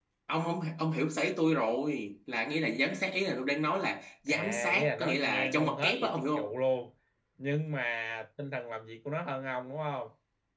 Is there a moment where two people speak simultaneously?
Yes, from 4.3 s

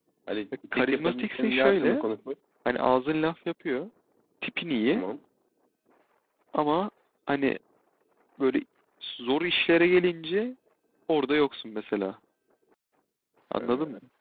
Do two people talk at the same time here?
Yes, from 0.7 s

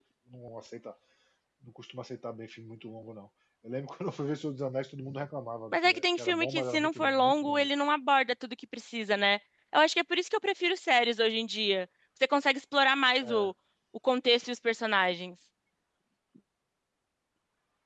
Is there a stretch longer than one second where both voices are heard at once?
Yes, from 5.7 s

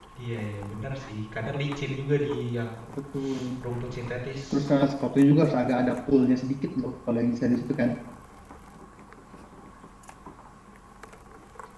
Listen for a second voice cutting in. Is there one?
No

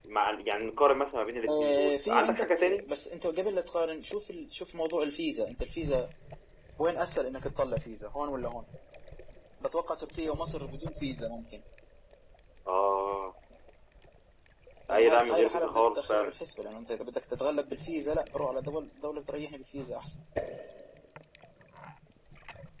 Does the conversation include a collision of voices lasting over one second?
Yes, from 1.5 s

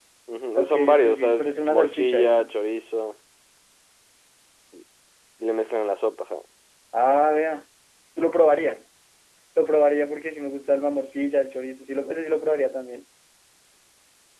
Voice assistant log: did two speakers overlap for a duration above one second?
Yes, from 0.6 s

